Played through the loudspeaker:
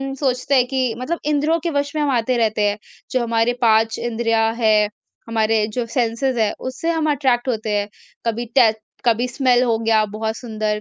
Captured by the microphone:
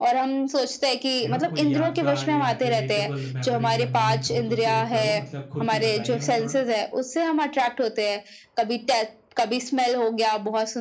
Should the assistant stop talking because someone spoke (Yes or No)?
Yes